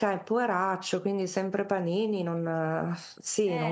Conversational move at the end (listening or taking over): taking over